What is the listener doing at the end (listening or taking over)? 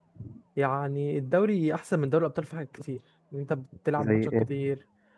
listening